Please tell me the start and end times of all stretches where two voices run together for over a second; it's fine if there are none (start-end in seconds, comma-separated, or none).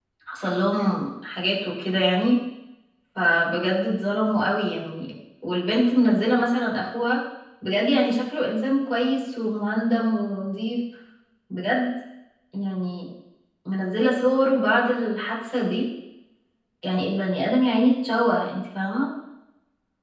none